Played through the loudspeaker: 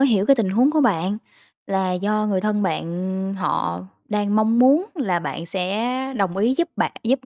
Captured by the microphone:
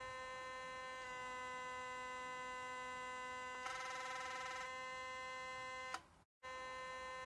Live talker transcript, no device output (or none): none